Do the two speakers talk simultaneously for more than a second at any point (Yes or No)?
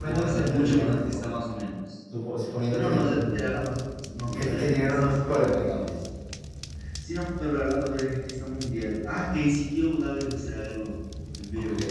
Yes